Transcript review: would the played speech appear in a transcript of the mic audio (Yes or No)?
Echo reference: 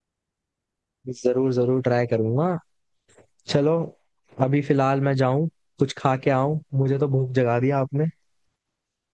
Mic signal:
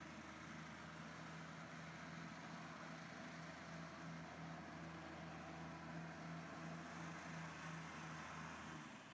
No